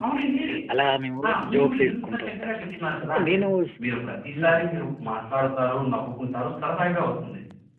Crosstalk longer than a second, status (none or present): present